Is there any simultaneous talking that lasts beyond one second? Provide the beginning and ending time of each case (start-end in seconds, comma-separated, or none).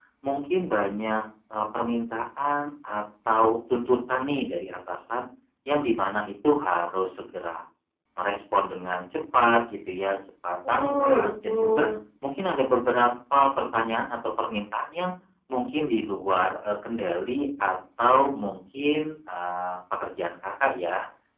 10.7-11.9